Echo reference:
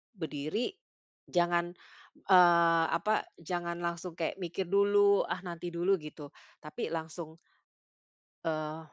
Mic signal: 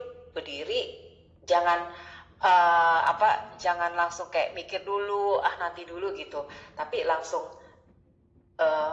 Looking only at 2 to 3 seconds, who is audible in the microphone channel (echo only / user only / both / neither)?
echo only